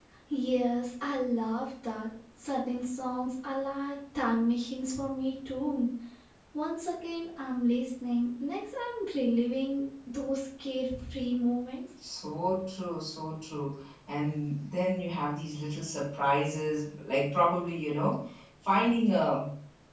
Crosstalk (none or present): none